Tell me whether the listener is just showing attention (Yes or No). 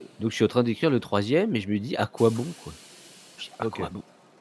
No